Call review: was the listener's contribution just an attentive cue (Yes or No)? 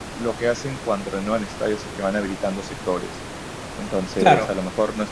Yes